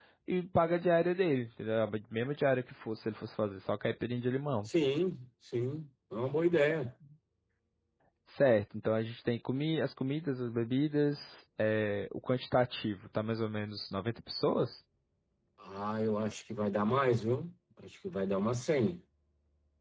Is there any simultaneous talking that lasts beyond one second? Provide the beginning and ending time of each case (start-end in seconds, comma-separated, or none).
none